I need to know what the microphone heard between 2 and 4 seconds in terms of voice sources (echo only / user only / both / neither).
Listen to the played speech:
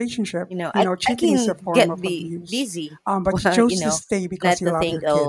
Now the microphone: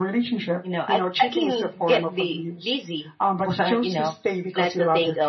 echo only